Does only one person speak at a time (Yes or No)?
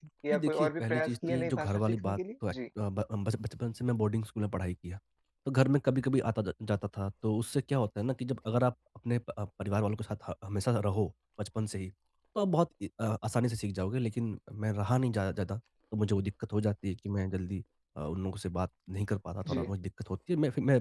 No